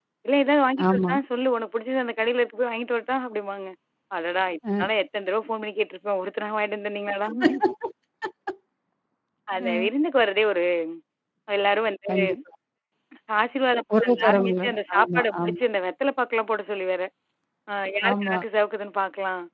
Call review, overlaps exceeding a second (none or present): present